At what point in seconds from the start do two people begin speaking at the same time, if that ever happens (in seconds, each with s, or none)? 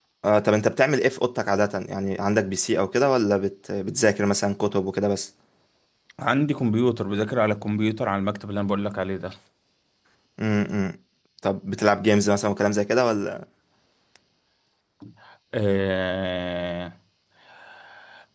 none